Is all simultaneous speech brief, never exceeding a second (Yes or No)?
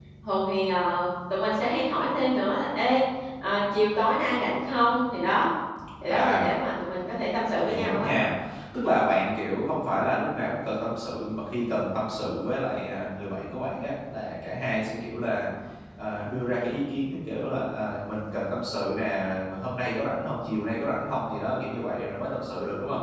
Yes